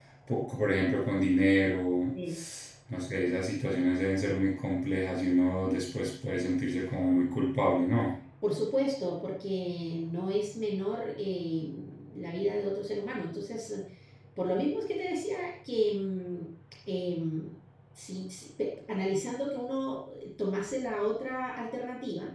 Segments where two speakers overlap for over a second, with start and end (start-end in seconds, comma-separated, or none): none